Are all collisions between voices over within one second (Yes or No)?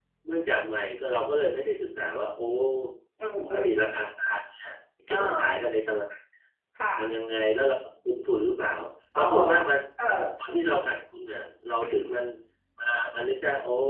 Yes